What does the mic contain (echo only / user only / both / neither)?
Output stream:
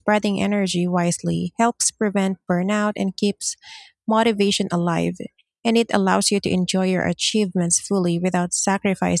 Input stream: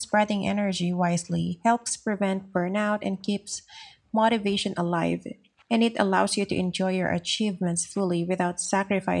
echo only